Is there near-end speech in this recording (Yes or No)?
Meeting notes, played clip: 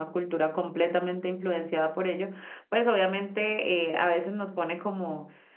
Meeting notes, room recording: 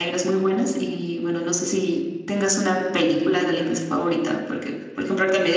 Yes